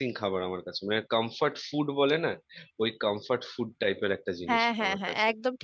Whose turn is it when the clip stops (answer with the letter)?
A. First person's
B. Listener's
B